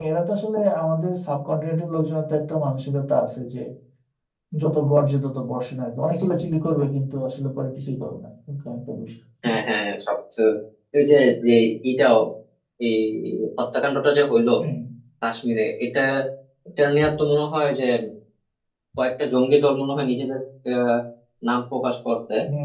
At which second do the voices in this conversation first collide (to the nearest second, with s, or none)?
none